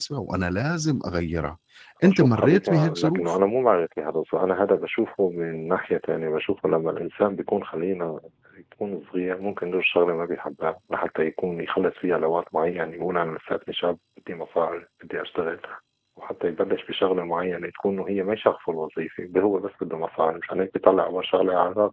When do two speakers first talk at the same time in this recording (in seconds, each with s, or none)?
2.0 s